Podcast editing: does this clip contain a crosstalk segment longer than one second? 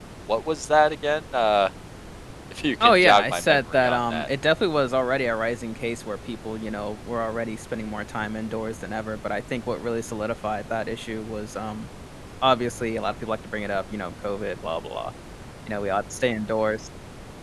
Yes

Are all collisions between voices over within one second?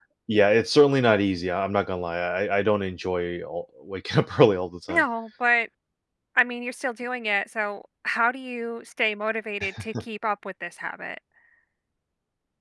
Yes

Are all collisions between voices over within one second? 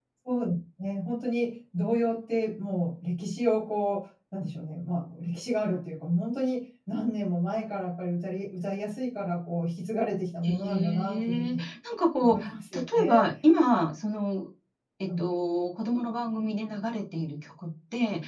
No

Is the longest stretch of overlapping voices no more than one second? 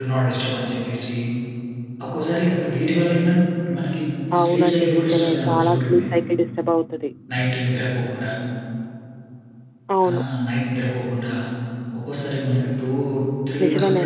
No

